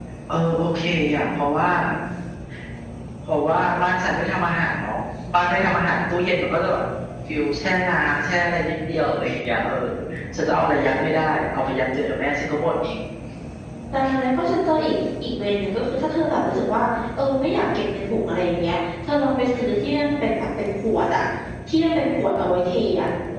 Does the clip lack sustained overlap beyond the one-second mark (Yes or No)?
Yes